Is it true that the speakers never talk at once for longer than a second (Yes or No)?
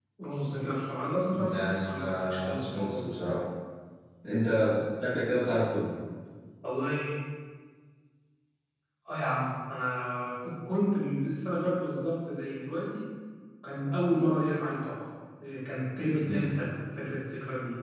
No